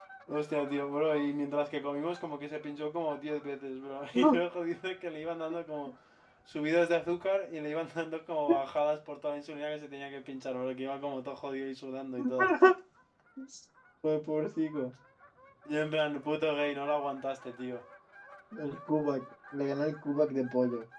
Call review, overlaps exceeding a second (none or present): none